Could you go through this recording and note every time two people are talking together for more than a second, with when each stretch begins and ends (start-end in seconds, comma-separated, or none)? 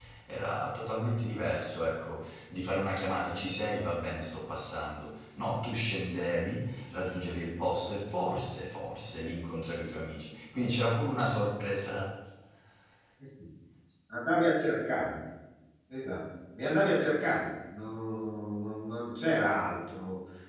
none